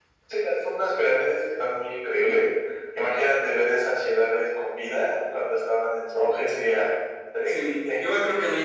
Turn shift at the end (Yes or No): Yes